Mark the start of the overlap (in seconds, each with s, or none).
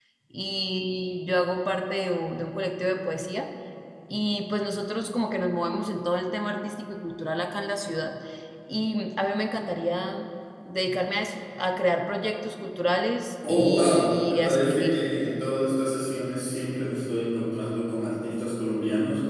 13.4 s